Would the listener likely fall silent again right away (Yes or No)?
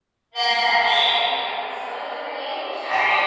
Yes